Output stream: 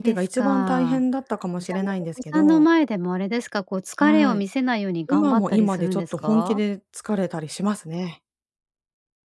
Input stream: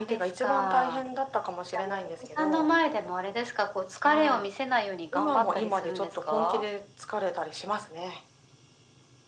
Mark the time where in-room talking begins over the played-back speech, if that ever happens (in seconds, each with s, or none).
none